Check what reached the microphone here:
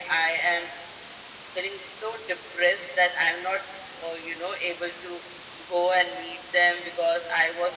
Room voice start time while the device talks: none

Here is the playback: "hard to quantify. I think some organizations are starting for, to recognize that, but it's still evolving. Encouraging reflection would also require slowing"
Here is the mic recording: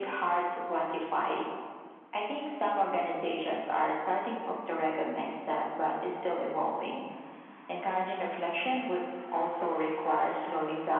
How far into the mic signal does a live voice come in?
none

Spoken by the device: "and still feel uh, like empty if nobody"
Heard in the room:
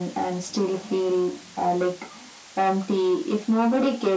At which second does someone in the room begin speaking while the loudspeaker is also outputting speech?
none

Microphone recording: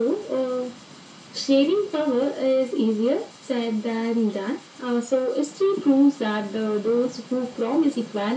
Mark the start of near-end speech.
none

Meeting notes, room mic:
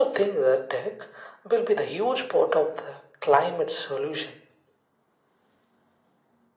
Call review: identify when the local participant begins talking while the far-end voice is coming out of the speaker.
none

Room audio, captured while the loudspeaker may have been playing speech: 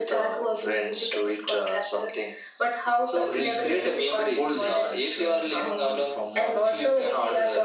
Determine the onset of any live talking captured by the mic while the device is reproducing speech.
3.1 s

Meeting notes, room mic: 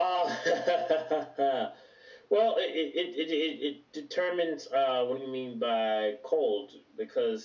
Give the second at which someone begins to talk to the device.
none

